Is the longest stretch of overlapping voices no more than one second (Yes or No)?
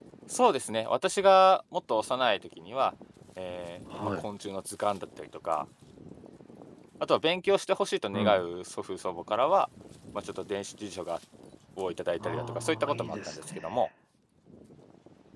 No